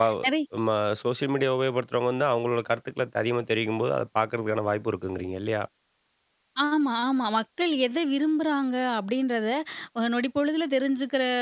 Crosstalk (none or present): none